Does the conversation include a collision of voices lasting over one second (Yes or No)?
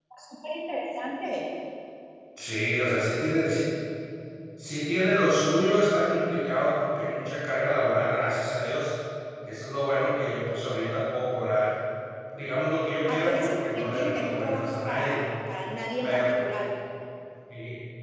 Yes